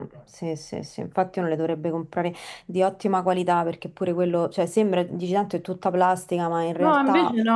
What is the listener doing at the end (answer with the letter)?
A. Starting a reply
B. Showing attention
A